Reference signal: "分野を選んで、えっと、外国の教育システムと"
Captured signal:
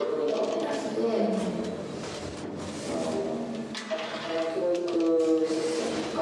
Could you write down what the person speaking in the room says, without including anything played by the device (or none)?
うん、